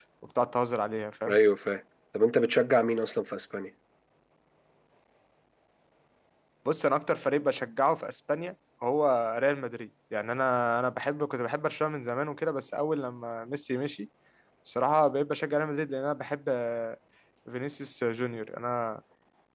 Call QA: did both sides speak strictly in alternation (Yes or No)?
Yes